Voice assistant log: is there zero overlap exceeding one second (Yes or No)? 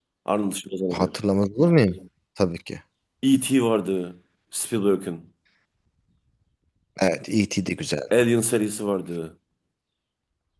Yes